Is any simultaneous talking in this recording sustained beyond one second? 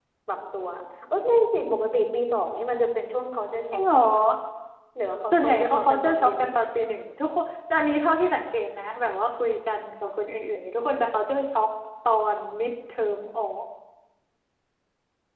Yes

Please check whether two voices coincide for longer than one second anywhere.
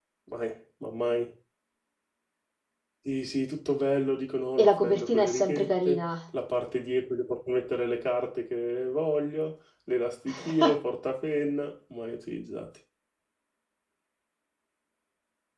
Yes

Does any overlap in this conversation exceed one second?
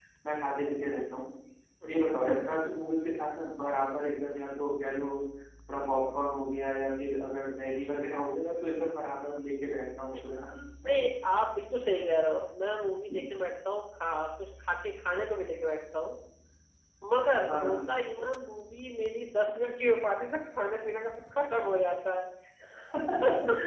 No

